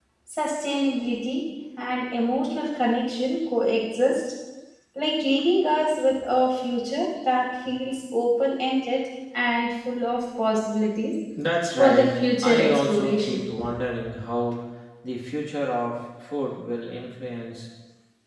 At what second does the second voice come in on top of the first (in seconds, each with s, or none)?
11.8 s